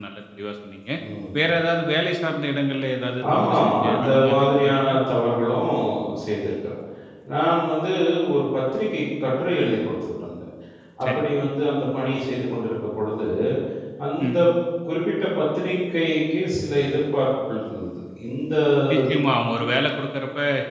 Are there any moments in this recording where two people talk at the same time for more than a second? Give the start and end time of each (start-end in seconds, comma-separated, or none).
3.3-5.0